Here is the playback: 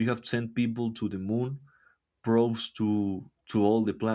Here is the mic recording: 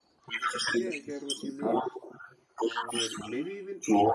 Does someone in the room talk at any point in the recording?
Yes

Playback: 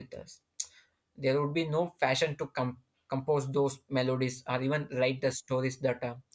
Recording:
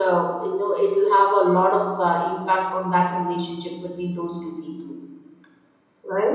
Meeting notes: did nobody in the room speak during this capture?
No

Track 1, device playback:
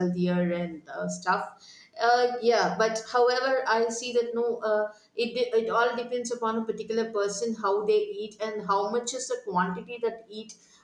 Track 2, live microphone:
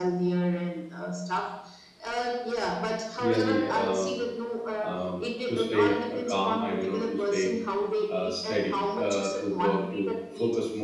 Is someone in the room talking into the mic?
Yes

